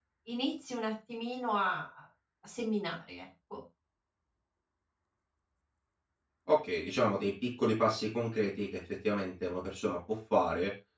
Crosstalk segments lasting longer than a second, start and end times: none

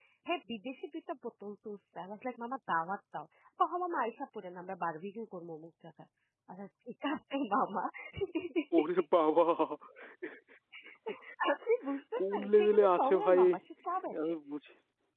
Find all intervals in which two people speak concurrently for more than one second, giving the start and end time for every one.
12.2-13.4

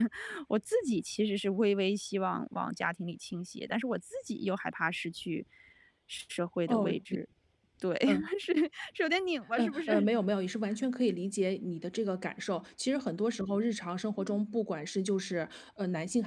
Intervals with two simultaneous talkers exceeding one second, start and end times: none

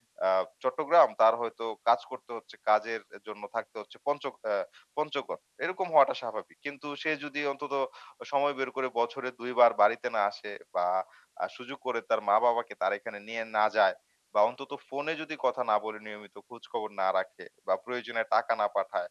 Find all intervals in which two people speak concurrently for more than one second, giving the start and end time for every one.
none

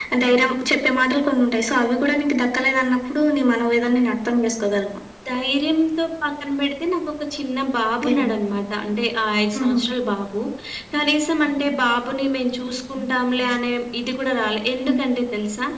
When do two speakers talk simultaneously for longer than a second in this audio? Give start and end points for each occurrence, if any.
none

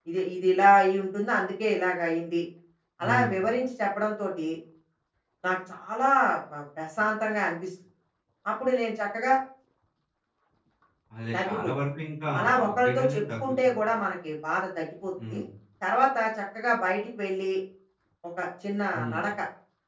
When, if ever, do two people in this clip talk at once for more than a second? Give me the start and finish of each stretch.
12.4-13.8

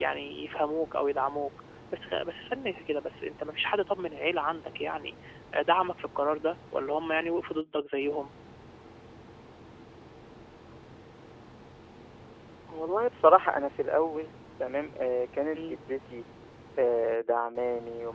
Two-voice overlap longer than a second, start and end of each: none

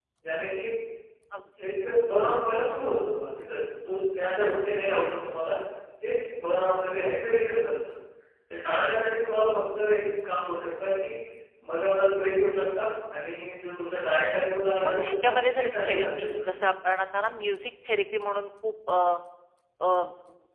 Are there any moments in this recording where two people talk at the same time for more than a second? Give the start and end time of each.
14.8-16.6

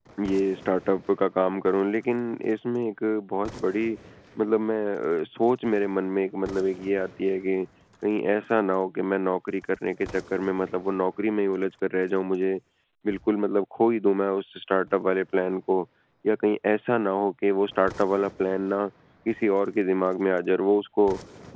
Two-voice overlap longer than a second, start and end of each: none

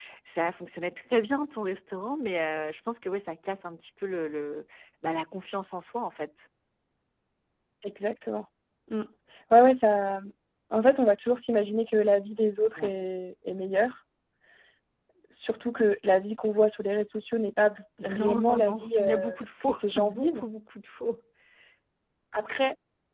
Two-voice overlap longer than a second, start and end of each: 18.0-20.4

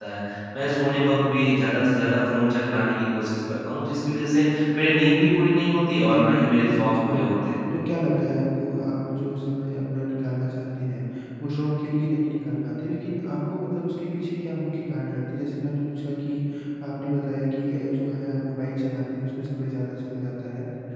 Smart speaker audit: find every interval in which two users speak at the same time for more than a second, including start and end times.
6.1-7.3

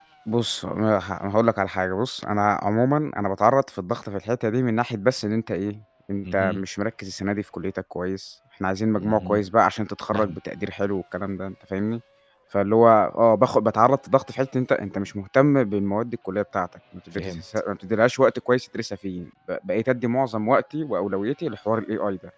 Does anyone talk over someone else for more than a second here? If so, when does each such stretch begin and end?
none

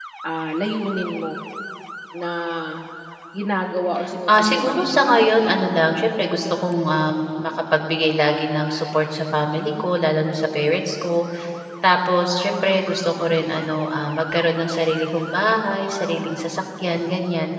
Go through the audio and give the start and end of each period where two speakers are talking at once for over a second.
4.3-5.6

